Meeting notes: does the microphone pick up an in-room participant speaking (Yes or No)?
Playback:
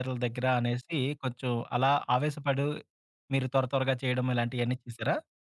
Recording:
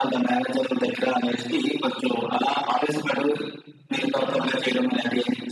Yes